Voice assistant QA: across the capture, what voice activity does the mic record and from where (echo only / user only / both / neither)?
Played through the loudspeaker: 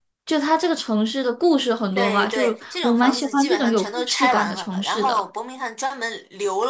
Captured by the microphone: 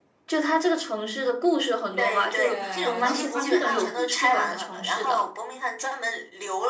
both